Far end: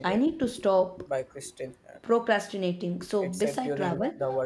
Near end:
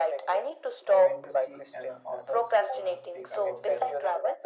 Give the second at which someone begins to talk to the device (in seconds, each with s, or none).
0.8 s